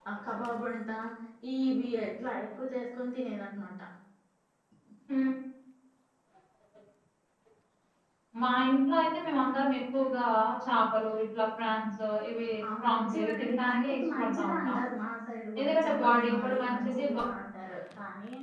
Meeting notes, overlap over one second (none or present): present